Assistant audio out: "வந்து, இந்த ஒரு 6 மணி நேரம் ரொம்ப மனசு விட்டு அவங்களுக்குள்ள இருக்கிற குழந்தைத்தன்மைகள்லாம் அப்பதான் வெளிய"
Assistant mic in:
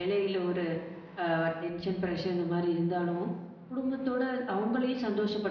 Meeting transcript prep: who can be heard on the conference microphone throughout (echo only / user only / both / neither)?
user only